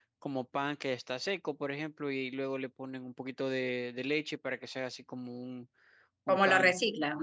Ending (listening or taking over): taking over